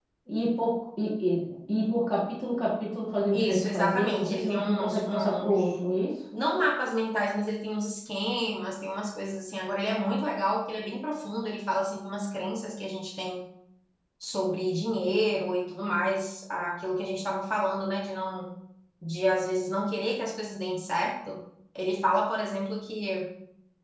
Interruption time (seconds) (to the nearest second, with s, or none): 3 s